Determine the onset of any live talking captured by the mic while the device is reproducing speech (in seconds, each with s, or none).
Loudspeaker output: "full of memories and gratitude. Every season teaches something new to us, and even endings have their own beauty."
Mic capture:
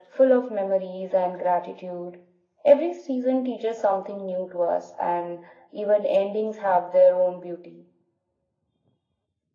none